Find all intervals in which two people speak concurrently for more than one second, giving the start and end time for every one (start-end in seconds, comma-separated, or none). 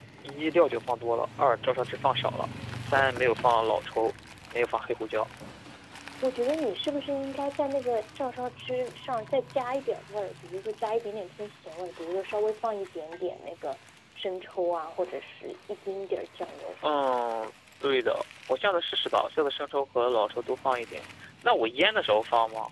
none